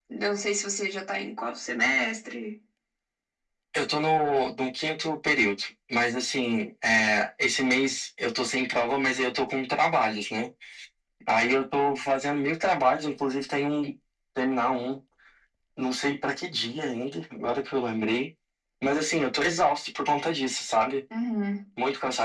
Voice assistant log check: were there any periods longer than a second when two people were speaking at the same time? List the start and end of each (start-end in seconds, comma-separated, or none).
none